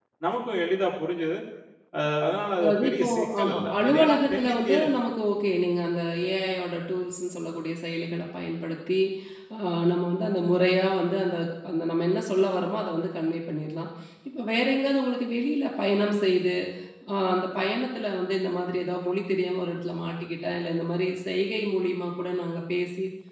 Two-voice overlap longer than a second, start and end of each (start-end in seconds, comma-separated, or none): 2.6-4.8